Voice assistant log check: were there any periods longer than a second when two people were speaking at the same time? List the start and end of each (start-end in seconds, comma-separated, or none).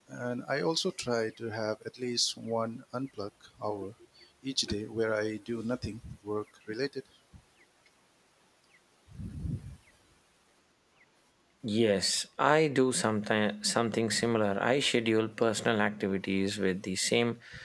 none